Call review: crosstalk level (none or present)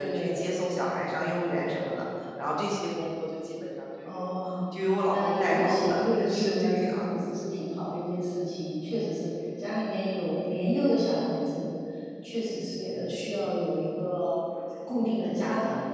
present